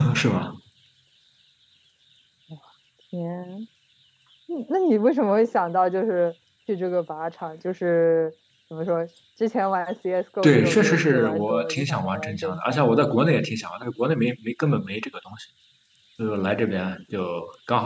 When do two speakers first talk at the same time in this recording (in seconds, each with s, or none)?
10.4 s